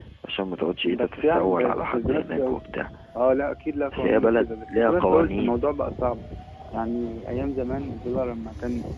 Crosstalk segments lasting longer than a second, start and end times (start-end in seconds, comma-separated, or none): 0.8-2.6, 3.9-5.6